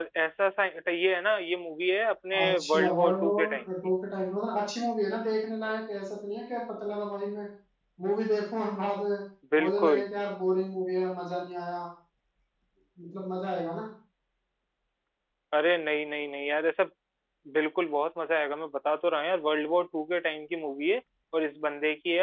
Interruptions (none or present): present